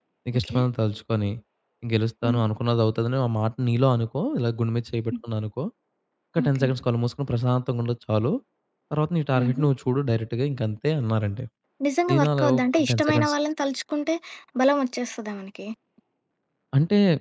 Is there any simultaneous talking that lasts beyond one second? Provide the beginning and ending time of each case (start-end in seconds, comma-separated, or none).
12.1-13.3